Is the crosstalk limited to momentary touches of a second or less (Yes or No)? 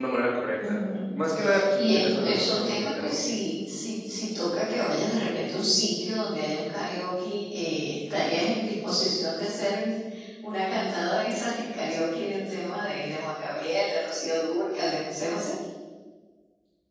No